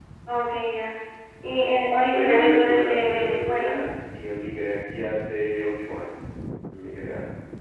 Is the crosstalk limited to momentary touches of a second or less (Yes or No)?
No